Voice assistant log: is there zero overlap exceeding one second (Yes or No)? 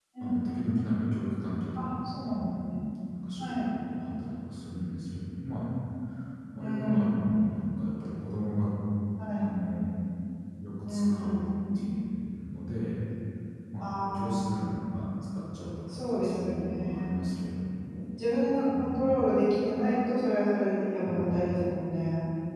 No